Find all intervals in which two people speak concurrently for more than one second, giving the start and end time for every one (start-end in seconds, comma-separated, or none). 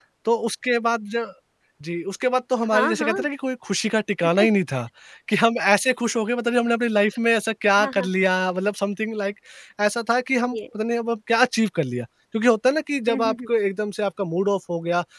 none